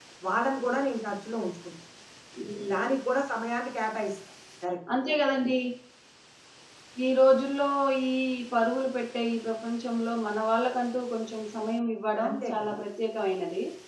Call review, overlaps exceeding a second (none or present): none